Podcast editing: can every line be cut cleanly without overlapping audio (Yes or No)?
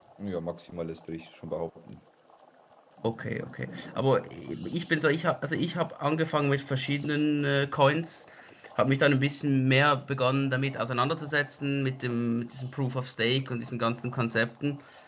Yes